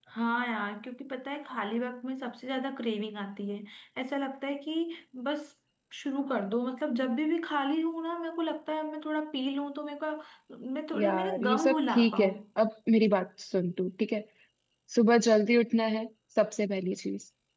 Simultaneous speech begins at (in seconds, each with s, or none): 10.9 s